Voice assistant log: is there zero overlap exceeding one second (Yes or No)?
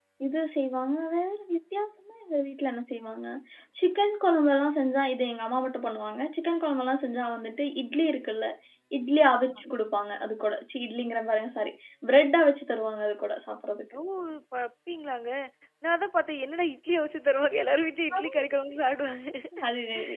Yes